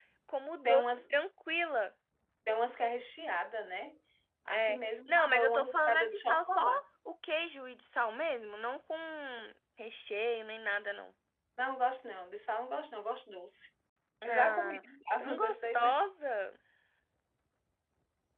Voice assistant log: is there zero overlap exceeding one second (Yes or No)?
No